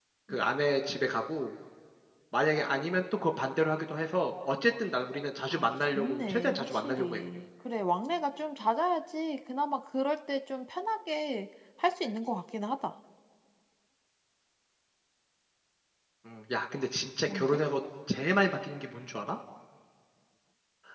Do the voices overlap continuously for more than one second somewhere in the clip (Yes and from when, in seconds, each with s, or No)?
Yes, from 5.5 s